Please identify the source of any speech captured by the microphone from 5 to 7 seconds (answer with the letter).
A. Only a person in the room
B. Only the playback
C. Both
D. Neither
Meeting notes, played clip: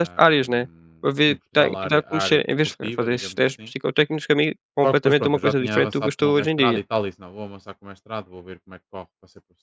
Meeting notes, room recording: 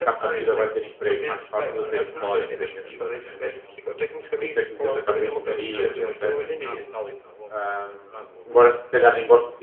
C